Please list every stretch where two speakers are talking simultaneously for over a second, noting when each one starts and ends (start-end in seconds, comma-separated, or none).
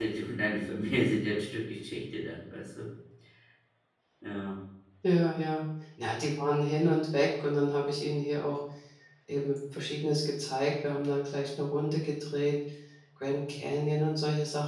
none